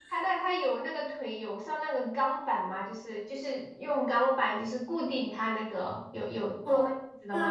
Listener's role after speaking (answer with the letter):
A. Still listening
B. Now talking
B